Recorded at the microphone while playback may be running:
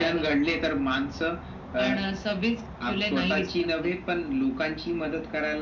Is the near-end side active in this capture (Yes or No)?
No